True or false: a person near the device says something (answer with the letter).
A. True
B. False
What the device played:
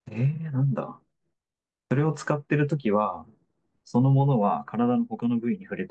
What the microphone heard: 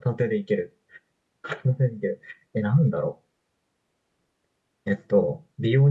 A